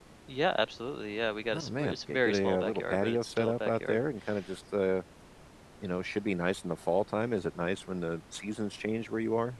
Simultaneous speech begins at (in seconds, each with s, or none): 1.5 s